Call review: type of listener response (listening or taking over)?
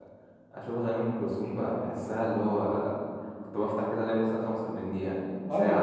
taking over